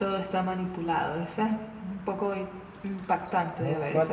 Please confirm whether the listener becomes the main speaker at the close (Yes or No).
Yes